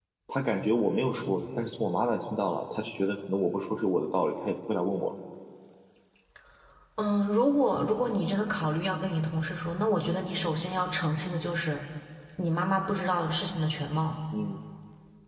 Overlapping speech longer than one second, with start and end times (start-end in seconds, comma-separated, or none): none